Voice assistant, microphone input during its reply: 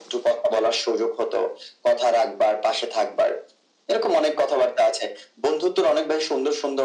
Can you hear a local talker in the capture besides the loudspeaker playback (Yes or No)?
No